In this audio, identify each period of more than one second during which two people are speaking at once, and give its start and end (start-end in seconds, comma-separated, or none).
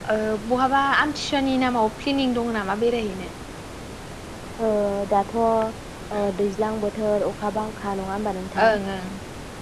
none